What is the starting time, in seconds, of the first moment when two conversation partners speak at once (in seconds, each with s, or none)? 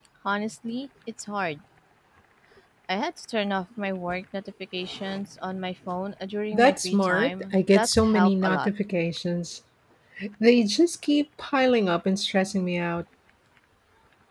6.5 s